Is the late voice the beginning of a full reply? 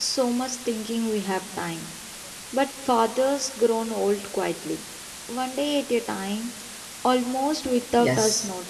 Yes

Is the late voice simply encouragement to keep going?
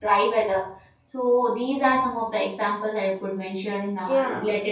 No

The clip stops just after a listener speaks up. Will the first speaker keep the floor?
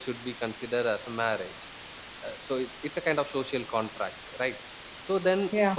Yes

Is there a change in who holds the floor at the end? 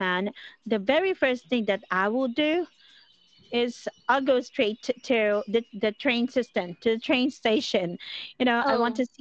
No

